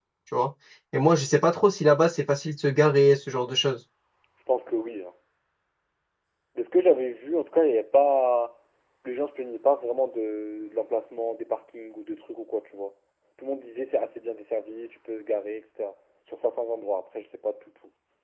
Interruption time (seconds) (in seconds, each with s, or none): none